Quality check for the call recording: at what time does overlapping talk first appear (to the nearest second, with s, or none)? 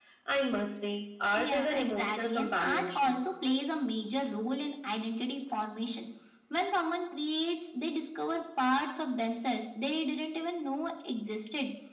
1 s